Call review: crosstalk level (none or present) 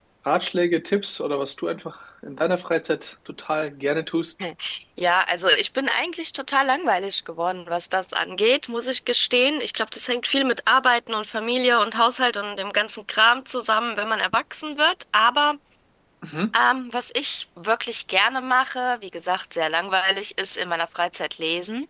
none